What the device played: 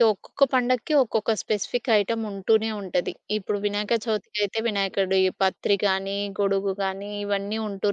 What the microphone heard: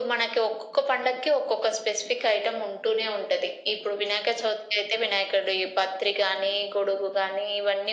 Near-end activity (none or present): none